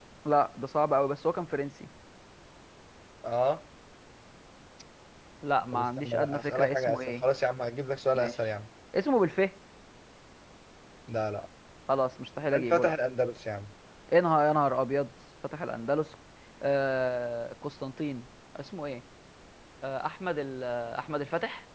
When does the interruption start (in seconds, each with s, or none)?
5.7 s